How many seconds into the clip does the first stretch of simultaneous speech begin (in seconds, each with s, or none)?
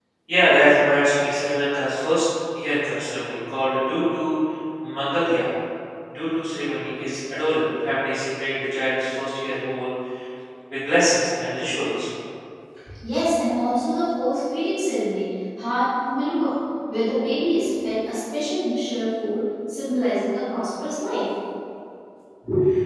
none